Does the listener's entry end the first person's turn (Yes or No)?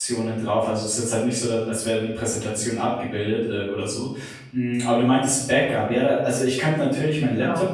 No